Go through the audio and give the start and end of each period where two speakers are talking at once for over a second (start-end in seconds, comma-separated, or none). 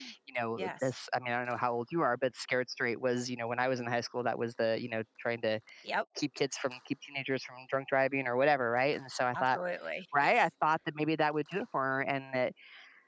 none